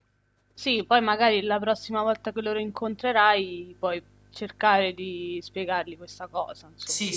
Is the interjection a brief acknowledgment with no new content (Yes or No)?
No